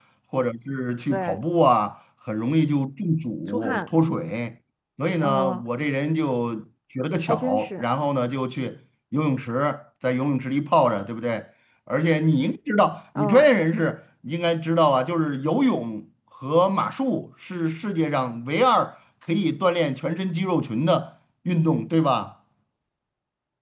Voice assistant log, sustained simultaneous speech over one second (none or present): none